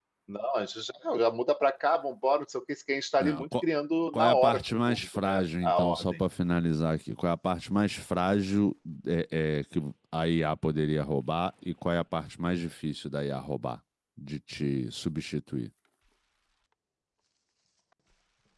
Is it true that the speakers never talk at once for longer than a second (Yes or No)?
No